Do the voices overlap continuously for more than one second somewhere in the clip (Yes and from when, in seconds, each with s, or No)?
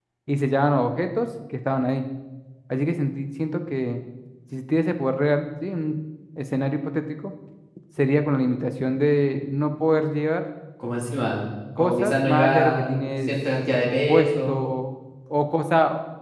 Yes, from 11.8 s